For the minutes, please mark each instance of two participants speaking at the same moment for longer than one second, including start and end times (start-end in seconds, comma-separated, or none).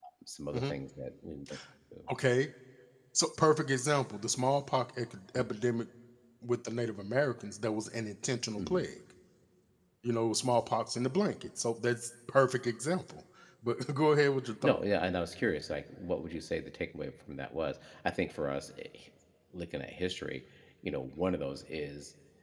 none